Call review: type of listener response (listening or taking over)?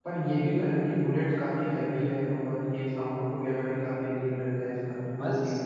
taking over